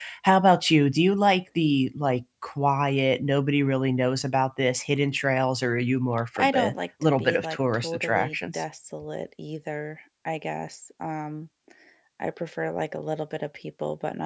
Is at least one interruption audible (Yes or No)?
Yes